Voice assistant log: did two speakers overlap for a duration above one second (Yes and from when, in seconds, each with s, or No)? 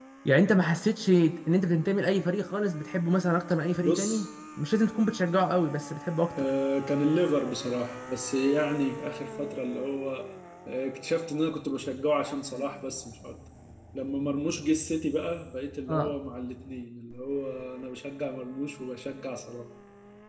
No